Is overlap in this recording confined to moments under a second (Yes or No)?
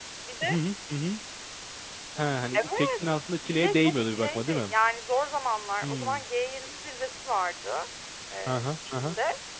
No